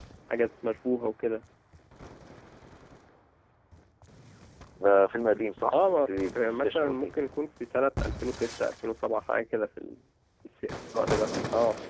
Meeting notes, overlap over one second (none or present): present